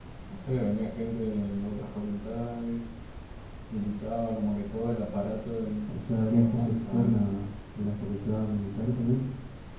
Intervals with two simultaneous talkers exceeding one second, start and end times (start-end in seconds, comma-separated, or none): 5.9-7.1